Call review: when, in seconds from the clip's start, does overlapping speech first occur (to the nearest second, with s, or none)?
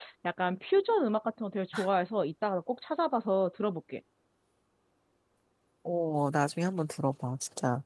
none